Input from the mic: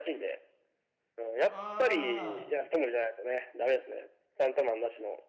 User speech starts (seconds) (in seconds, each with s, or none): 1.4 s